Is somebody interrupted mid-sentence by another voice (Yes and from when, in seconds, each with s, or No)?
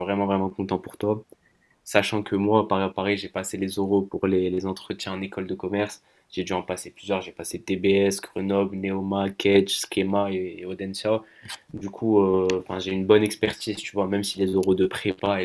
No